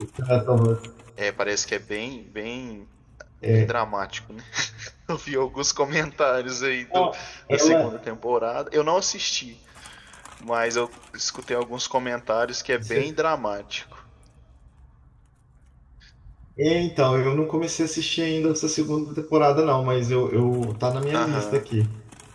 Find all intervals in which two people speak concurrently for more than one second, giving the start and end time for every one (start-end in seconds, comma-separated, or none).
none